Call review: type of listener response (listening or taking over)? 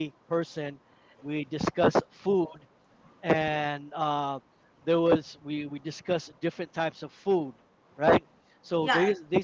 listening